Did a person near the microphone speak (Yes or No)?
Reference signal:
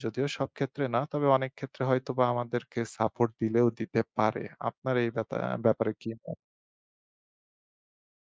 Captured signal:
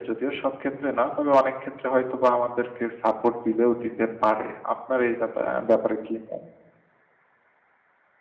No